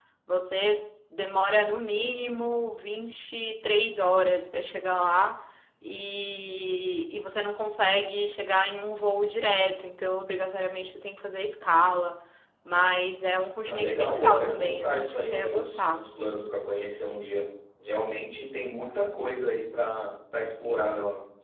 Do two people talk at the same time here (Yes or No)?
Yes